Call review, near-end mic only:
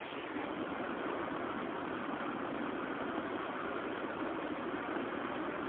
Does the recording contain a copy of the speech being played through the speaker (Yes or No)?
No